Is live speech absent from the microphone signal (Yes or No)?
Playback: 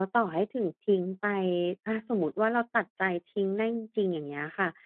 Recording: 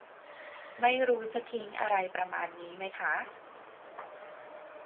No